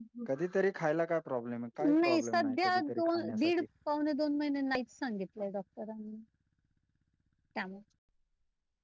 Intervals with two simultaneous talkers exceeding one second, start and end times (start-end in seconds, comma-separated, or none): 2.0-3.4